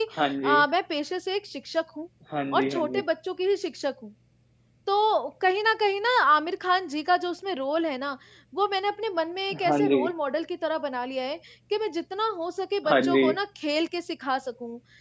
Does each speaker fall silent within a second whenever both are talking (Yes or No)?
Yes